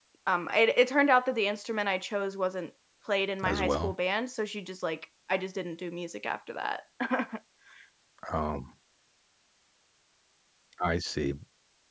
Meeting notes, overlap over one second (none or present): none